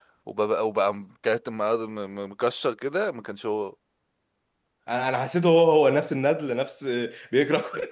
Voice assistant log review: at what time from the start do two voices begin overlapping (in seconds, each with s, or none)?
none